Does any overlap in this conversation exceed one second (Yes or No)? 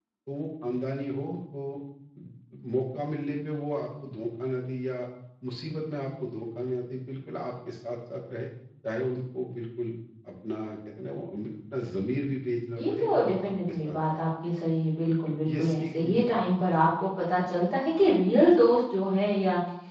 Yes